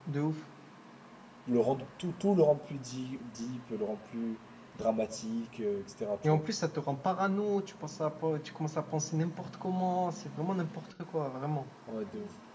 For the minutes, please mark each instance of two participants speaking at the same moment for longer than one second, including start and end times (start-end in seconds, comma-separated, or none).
none